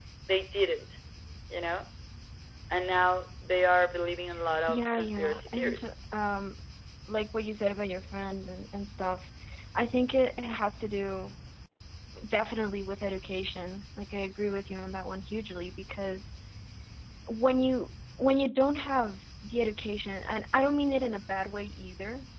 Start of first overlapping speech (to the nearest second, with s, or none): 5 s